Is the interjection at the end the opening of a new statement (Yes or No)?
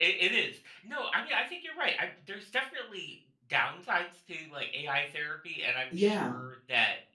No